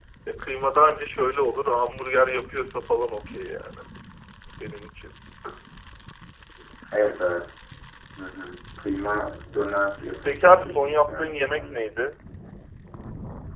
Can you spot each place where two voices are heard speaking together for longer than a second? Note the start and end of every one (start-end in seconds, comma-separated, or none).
10.2-11.8